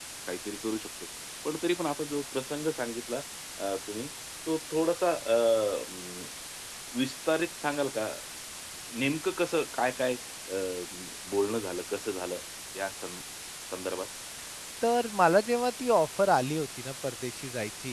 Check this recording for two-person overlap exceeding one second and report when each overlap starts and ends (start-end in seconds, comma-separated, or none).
none